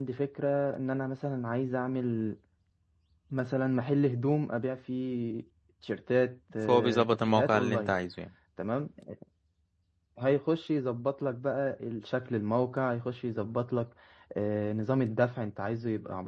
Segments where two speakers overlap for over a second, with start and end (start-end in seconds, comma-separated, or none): 6.7-7.9